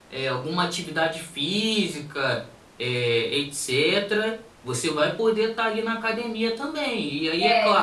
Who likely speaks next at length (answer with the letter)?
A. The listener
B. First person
A